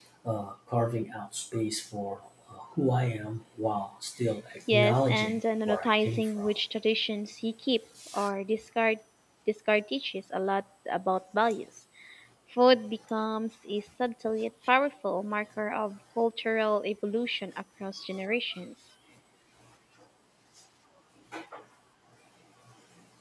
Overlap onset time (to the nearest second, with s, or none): 5 s